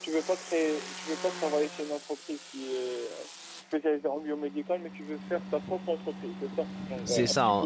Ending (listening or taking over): taking over